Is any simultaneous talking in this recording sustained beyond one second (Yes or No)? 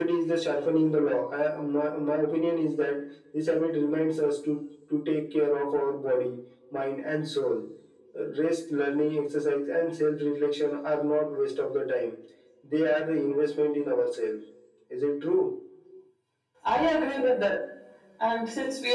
No